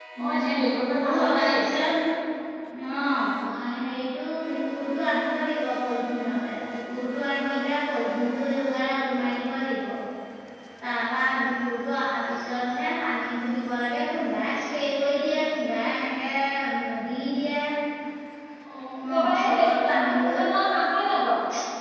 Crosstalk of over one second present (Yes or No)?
Yes